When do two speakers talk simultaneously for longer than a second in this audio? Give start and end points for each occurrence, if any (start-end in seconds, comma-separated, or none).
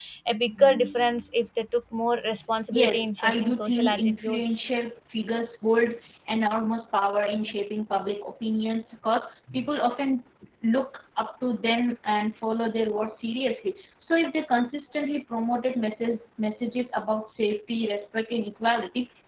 2.7-4.6